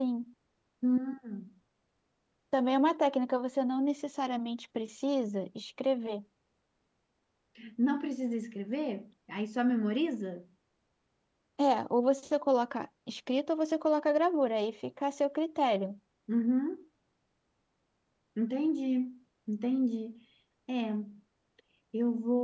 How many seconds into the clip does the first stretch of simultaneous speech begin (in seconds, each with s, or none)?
none